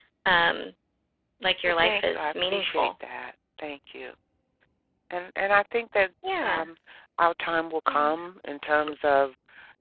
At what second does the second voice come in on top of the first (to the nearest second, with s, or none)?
2 s